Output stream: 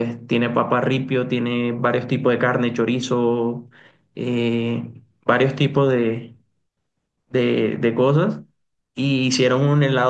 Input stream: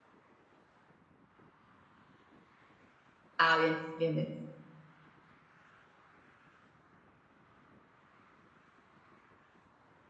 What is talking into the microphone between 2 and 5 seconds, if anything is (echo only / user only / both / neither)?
user only